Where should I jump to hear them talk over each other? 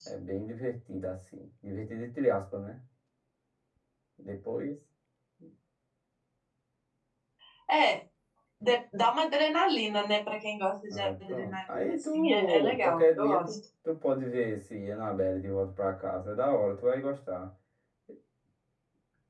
10.9 s

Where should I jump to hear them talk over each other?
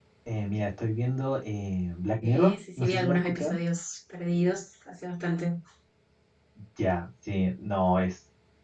2.2 s

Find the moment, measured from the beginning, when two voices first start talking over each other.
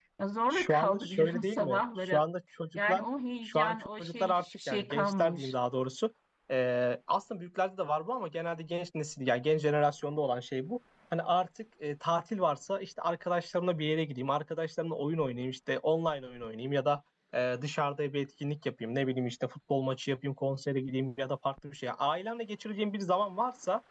0.5 s

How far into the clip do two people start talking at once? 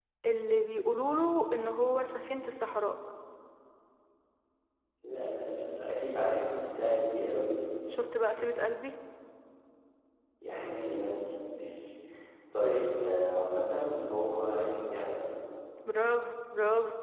none

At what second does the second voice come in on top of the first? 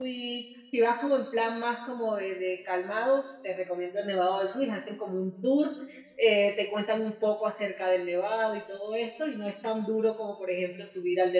none

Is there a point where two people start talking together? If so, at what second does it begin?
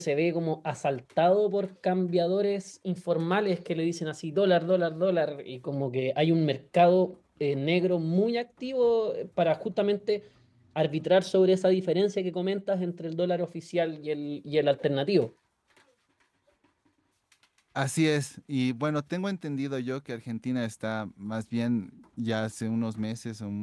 none

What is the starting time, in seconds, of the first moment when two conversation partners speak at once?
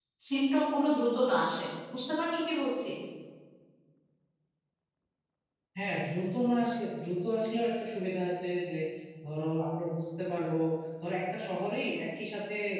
none

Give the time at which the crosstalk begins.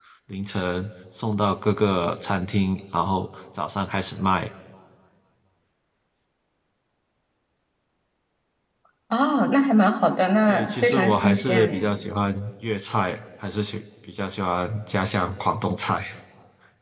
10.5 s

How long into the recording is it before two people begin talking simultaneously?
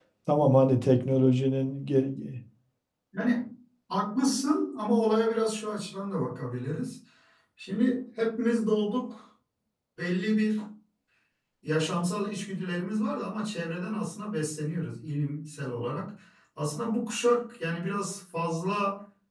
none

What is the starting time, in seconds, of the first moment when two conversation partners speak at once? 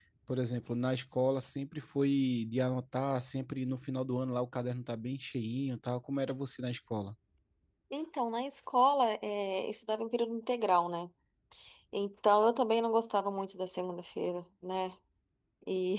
none

